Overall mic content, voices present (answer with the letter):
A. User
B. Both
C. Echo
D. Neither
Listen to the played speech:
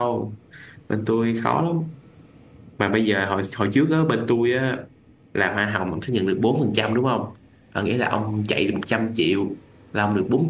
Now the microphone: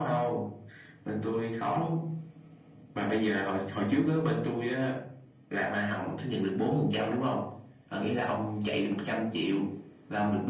C